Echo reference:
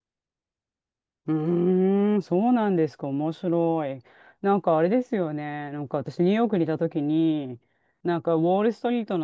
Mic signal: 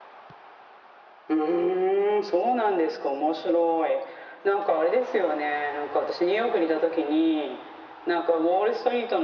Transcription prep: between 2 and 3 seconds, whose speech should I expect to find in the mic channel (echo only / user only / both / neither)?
echo only